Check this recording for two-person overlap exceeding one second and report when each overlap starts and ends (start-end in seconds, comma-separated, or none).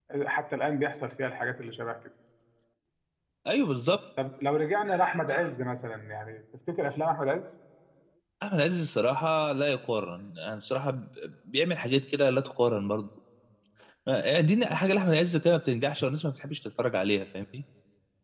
none